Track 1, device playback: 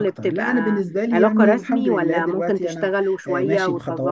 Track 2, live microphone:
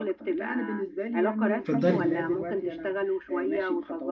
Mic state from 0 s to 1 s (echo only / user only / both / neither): echo only